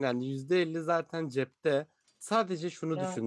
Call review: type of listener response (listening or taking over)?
listening